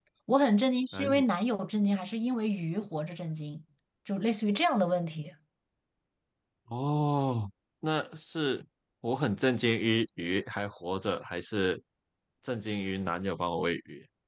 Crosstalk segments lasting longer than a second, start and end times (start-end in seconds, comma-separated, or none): none